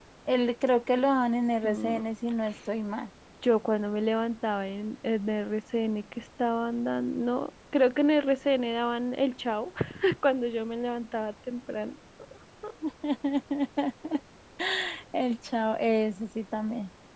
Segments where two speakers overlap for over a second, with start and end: none

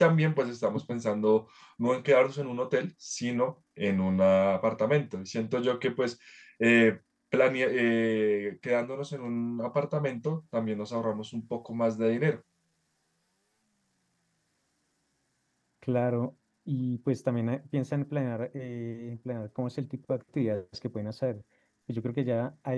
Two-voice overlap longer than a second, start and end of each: none

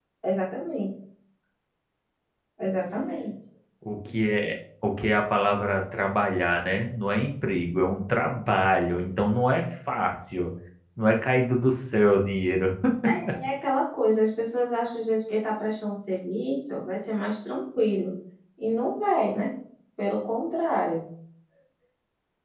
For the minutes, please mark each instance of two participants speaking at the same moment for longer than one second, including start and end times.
none

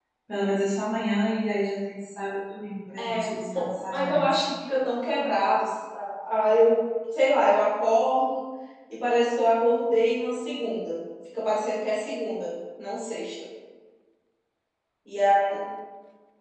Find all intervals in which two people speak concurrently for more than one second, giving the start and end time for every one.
none

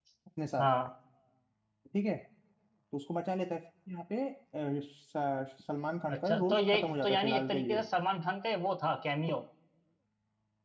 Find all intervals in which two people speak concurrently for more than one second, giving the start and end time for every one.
6.1-7.8

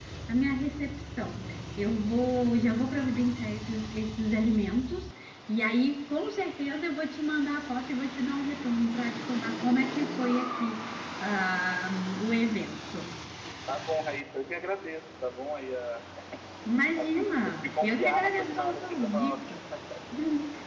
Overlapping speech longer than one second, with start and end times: 17.0-19.5

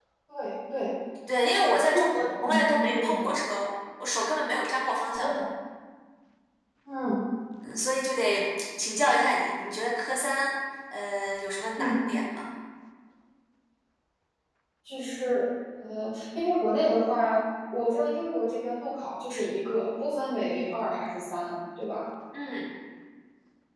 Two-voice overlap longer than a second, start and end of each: 1.9-3.2

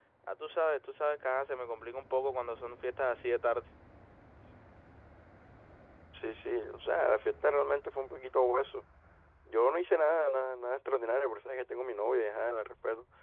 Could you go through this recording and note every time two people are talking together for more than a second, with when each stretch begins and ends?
none

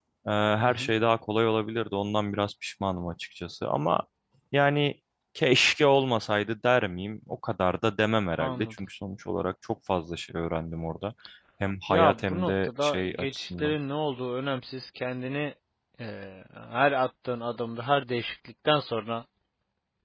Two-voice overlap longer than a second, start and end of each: 11.9-13.8

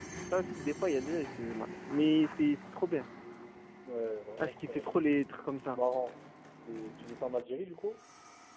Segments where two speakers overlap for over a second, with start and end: none

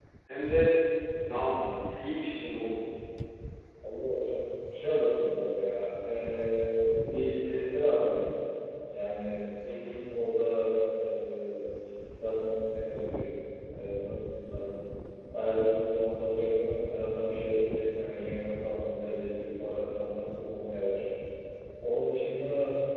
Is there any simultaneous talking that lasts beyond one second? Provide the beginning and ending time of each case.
none

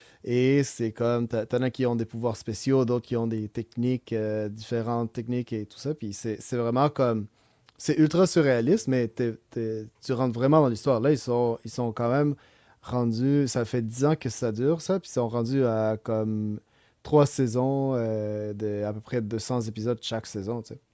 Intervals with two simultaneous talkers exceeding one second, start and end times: none

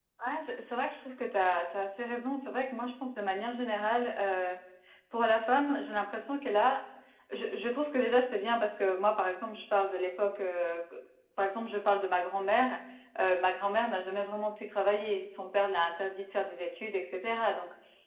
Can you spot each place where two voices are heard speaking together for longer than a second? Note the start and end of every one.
none

